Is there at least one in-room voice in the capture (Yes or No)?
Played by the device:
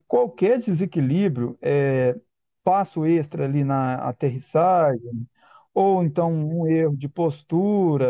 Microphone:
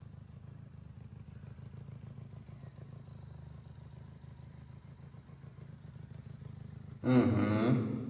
Yes